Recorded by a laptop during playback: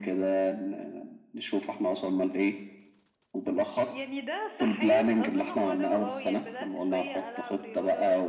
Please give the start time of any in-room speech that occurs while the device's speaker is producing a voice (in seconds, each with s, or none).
3.8 s